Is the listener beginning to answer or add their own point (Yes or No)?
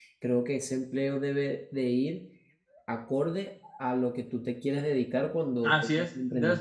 Yes